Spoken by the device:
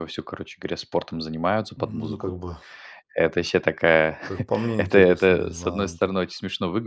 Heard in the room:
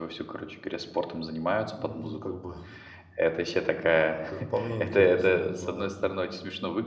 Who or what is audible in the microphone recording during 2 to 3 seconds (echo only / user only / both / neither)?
echo only